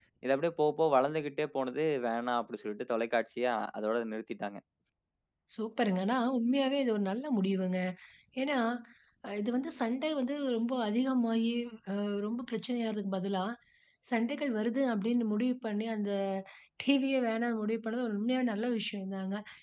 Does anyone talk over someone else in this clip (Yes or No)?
No